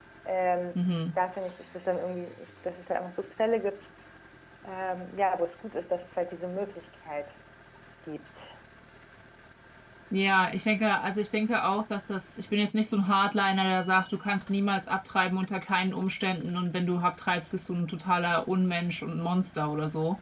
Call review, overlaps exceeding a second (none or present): none